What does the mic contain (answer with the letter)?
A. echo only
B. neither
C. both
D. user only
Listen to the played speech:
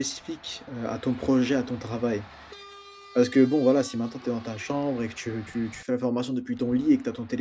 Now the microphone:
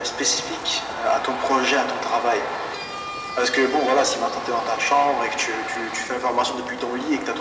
A